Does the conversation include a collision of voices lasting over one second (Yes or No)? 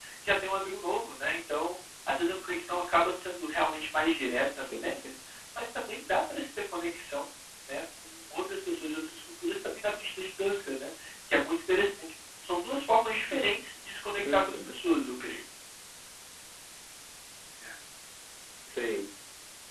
No